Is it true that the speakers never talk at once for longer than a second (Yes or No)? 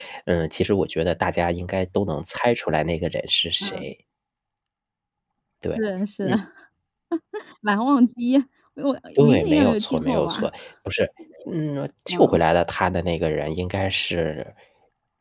No